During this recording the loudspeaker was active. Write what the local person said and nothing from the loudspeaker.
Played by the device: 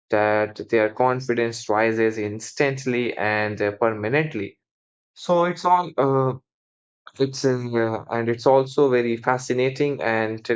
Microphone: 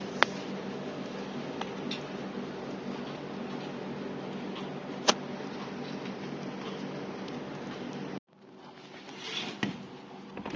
none

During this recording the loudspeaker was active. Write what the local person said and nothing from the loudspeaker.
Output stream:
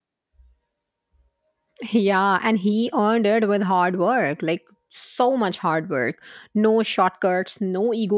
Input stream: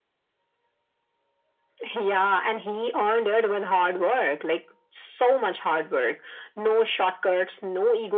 none

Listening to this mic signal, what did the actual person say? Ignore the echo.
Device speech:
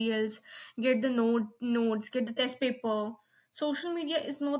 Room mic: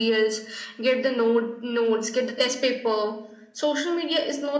none

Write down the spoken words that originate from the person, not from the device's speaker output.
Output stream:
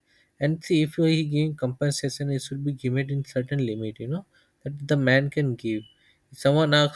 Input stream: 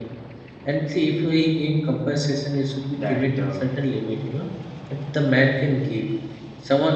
that uh,

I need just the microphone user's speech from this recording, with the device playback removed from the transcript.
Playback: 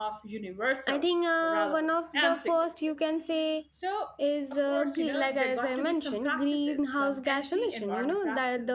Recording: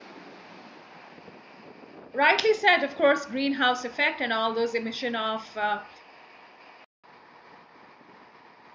rightly said of course greenhouse effect and all those emission of uh,

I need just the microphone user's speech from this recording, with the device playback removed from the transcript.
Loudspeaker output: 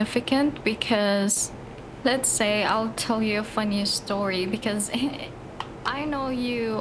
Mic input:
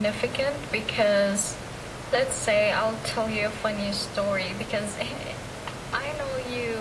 none

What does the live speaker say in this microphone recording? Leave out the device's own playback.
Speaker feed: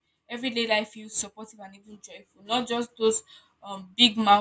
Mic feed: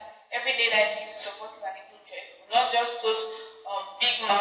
none

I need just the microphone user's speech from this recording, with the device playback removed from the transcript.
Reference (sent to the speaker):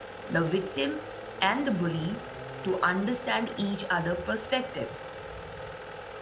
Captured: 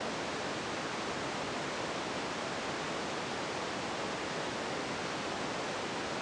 none

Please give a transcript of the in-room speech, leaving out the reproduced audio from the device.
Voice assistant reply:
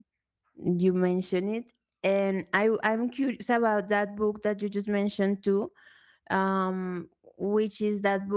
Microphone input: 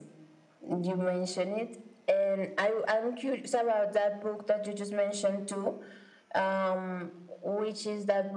none

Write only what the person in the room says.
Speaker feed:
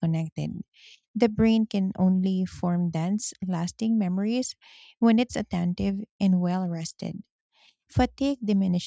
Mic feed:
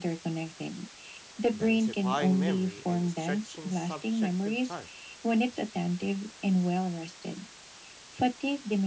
densifying memory and stretching subjective time.

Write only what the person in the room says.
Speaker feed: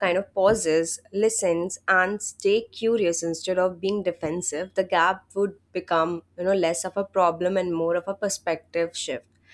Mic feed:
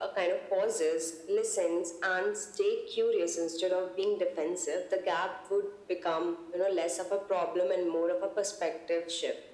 none

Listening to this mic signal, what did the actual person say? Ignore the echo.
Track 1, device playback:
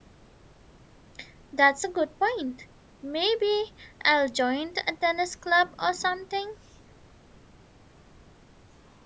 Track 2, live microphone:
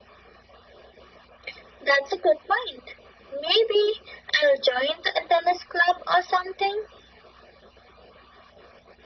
none

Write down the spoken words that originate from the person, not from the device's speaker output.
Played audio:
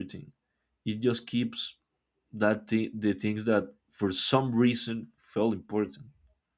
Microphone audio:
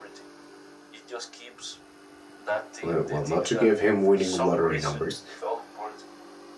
uh, well, not to give him winning lottery numbers,

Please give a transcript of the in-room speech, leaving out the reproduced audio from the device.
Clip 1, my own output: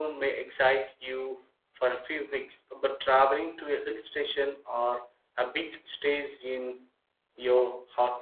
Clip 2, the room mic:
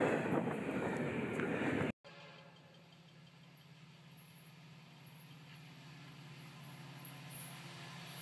none

